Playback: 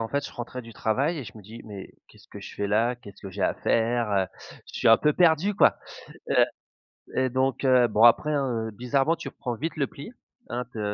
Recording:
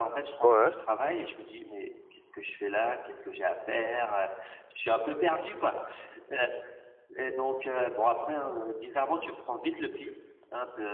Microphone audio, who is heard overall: both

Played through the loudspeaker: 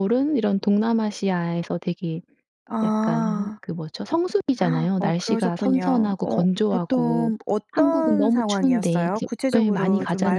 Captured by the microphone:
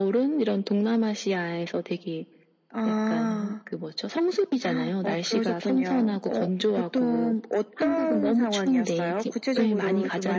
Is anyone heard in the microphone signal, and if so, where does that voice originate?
echo only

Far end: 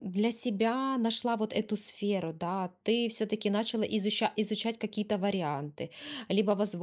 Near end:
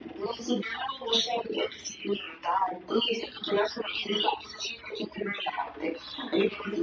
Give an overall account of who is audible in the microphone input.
echo only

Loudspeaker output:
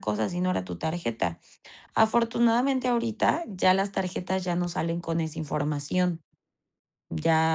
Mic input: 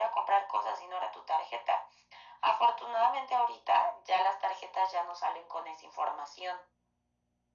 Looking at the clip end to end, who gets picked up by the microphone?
echo only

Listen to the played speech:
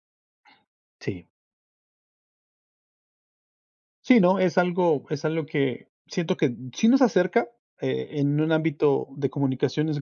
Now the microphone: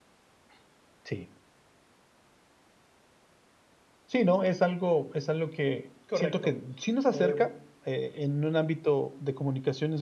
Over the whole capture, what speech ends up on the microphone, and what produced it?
both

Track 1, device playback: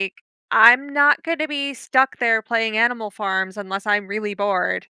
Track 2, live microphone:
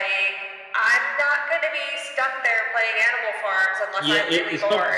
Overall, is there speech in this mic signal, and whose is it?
both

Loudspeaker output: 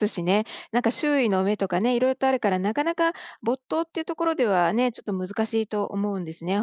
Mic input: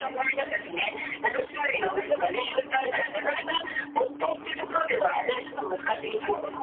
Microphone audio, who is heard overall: echo only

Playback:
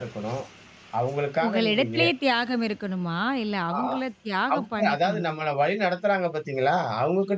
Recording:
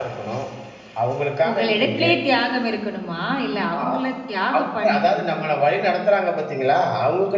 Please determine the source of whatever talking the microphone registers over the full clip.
echo only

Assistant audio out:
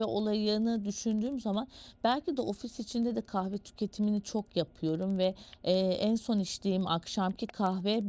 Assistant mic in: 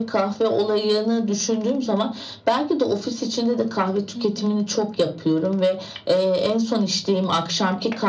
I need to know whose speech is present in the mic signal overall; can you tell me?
both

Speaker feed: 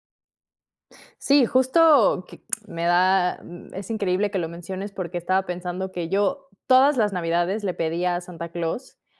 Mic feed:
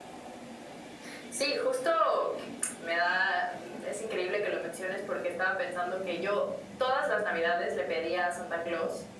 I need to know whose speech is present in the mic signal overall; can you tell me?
echo only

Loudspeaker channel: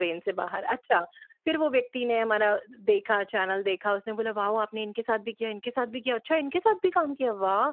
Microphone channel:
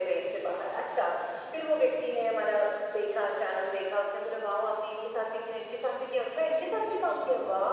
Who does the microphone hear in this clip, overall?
echo only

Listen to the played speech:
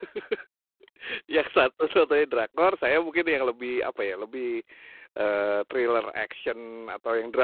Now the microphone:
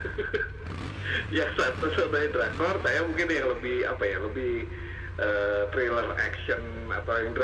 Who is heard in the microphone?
echo only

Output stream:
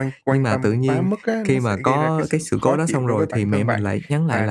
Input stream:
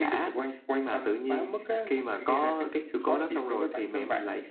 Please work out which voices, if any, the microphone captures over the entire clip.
echo only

